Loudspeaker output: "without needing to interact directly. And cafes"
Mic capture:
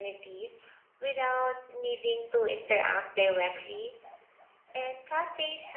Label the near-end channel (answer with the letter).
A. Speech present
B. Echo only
B